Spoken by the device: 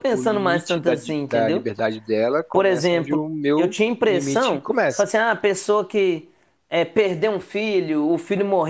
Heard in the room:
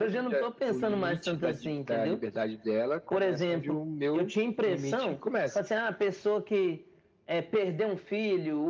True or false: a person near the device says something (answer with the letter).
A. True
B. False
B